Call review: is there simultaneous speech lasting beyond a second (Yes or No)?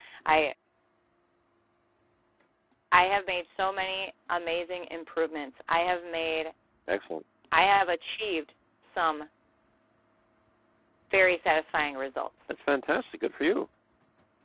No